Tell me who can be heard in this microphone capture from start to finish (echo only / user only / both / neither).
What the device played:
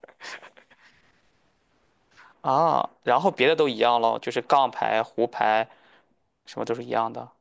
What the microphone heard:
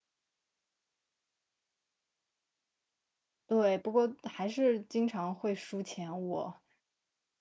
user only